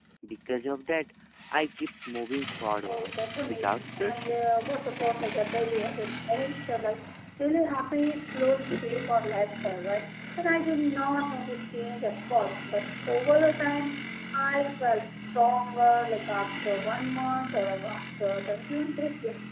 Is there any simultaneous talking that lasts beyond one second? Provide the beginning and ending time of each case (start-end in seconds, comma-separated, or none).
2.8-4.4